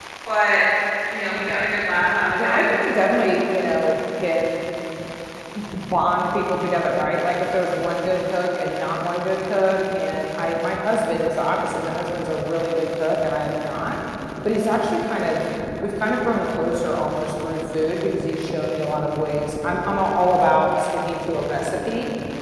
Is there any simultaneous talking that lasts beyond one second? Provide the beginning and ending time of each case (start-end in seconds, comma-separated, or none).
none